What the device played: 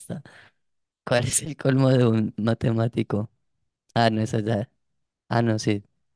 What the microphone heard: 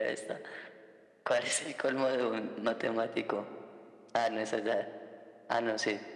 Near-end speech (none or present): none